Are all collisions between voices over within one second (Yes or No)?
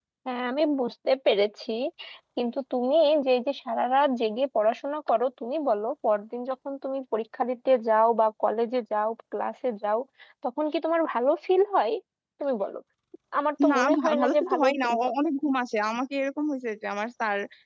No